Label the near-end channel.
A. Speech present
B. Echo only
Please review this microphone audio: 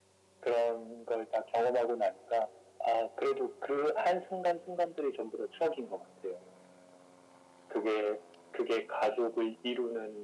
B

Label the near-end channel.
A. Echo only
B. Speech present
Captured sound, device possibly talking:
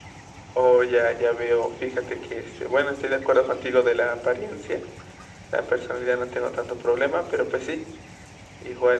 A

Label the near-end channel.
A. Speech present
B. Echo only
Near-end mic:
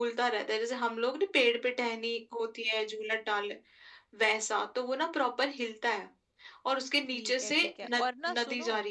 A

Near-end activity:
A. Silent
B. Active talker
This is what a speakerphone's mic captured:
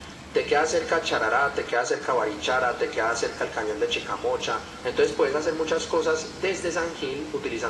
A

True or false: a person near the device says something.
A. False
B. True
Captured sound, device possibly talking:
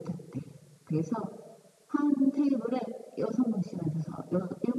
A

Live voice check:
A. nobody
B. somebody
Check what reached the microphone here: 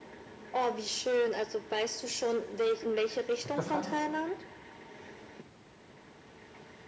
B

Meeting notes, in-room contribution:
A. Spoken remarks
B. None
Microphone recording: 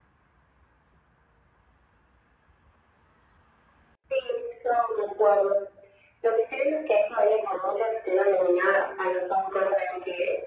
B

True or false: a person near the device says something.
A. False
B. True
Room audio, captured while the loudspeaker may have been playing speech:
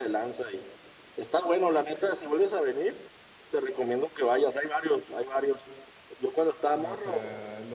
B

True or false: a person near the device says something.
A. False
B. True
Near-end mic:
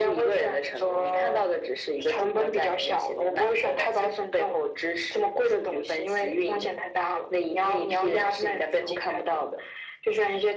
A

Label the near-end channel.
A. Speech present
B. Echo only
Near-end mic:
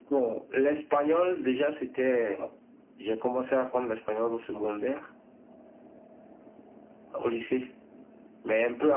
B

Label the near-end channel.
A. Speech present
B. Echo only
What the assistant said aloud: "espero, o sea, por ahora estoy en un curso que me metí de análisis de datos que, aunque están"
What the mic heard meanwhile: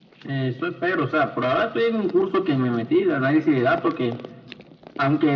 B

